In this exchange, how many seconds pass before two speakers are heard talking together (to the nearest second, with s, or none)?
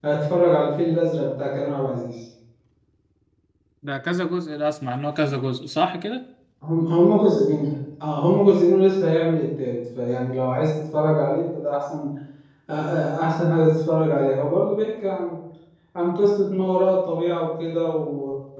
none